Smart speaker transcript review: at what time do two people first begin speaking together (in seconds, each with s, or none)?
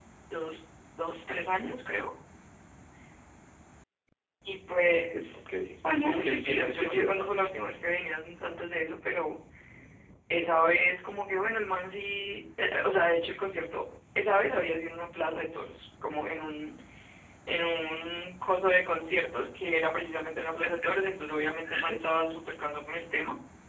5.9 s